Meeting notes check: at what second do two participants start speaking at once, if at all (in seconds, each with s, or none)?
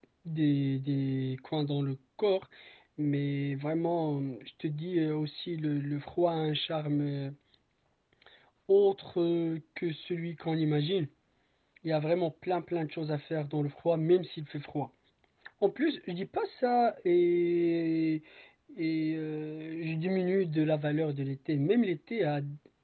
none